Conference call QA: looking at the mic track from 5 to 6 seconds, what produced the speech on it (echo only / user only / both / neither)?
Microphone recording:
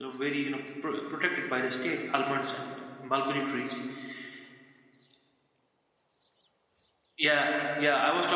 neither